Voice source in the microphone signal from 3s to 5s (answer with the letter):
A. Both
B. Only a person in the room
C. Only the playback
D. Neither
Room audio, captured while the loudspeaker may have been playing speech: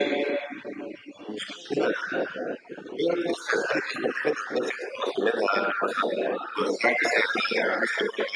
C